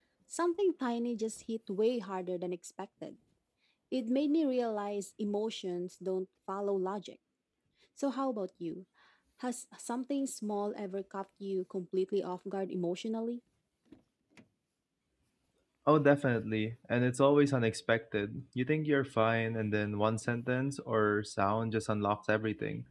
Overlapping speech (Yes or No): No